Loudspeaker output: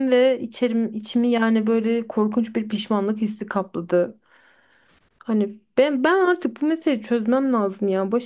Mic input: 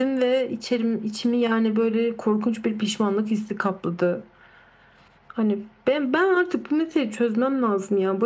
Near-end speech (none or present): none